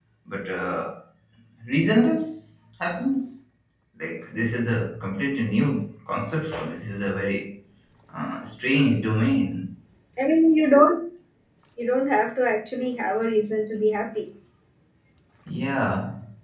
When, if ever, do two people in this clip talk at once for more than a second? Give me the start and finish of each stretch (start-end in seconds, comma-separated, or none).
none